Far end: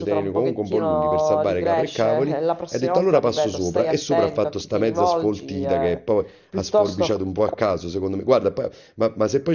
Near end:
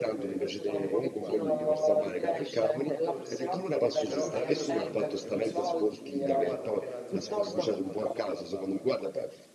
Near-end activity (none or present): present